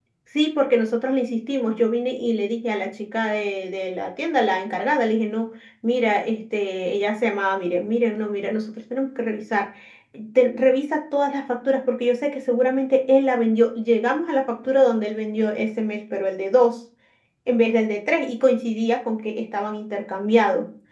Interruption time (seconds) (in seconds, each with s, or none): none